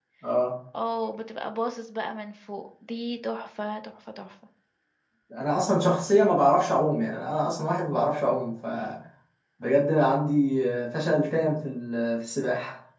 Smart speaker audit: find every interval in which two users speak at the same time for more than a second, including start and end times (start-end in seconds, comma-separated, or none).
none